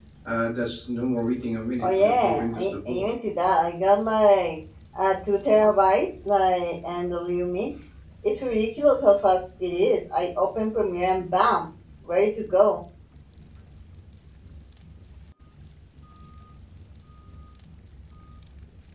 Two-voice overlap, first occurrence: 1.8 s

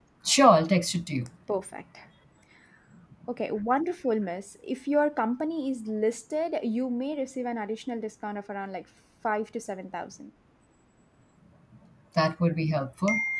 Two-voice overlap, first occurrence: none

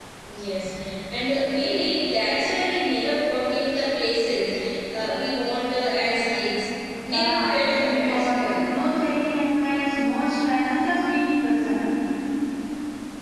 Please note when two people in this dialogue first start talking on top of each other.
7.1 s

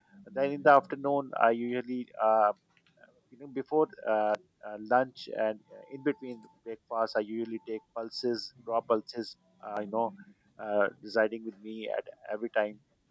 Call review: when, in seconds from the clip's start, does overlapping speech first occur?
none

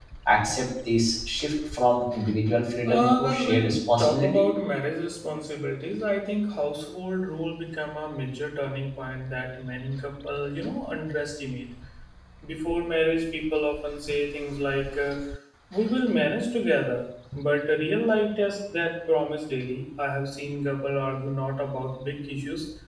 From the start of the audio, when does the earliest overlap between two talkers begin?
2.8 s

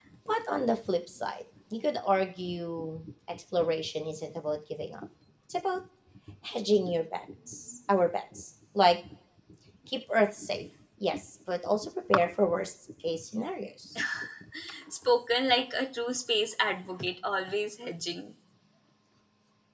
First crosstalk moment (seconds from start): none

